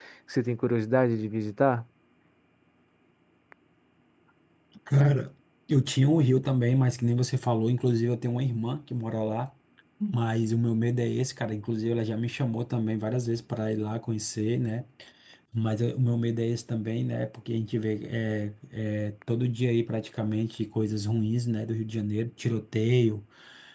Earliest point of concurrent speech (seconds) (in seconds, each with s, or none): none